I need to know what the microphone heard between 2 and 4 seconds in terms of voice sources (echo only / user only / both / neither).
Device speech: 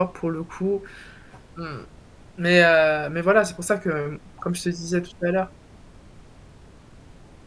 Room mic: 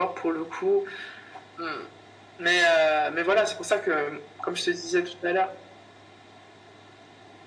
echo only